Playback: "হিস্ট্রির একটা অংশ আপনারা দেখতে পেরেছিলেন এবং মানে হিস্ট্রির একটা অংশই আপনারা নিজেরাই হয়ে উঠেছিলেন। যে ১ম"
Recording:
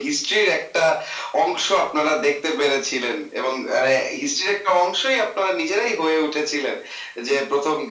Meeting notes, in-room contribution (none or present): none